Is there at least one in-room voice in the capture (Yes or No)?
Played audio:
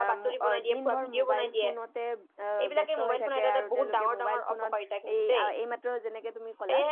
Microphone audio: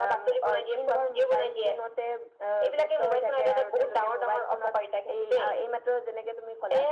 No